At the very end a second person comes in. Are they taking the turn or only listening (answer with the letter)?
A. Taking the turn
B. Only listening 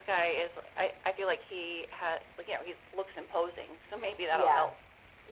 A